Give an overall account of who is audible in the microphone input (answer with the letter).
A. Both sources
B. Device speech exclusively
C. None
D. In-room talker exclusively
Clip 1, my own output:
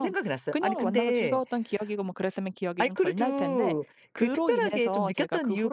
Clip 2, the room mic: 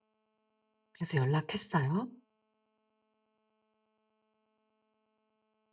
D